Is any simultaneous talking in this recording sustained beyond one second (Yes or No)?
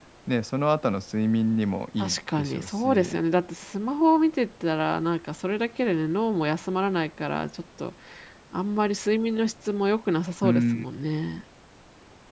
Yes